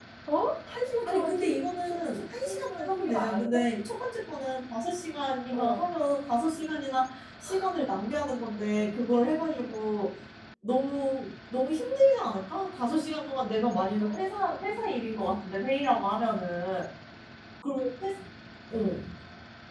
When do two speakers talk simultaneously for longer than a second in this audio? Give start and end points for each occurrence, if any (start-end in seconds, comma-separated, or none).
1.1-3.6